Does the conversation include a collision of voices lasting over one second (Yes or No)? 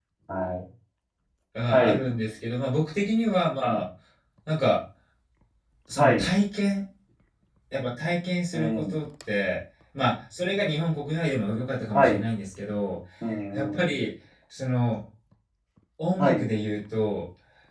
No